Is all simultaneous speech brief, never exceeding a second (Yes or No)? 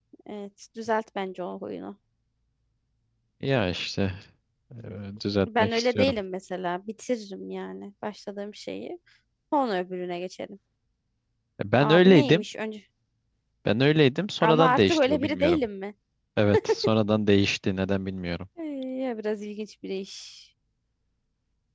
No